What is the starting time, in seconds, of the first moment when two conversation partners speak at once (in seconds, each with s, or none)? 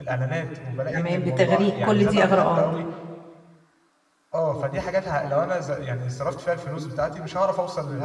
0.9 s